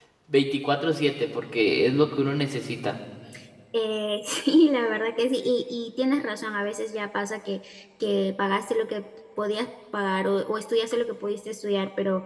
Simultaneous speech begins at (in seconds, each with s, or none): none